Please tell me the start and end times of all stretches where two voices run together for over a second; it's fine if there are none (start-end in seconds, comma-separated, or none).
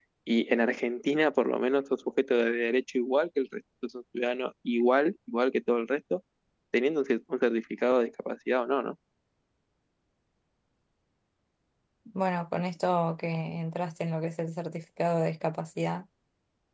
none